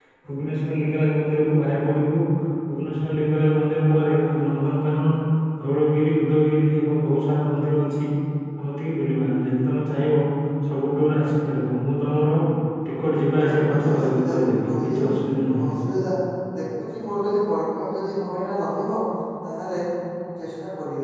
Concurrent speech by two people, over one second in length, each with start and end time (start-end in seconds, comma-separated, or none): 13.3-15.0